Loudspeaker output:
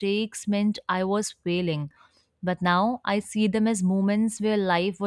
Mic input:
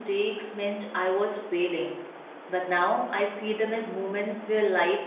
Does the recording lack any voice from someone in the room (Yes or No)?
Yes